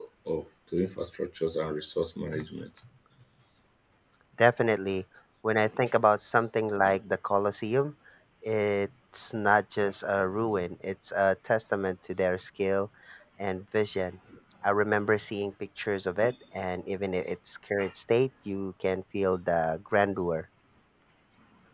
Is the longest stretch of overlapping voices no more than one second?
Yes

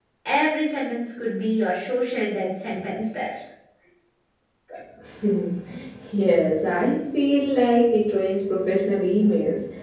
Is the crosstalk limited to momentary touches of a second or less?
Yes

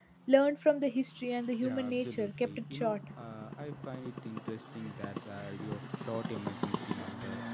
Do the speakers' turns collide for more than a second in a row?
Yes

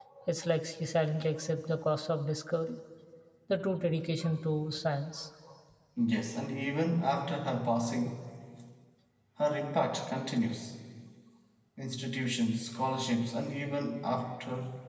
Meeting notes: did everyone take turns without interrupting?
Yes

